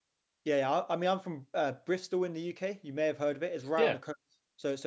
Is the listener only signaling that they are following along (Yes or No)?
Yes